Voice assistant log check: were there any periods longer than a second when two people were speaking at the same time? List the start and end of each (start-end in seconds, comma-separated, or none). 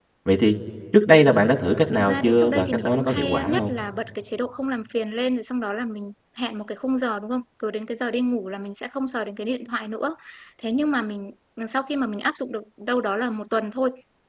2.0-3.7